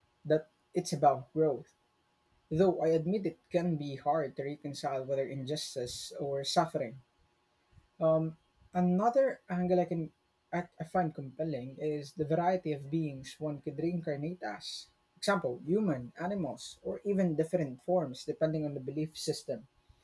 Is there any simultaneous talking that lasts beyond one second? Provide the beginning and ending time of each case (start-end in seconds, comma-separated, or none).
none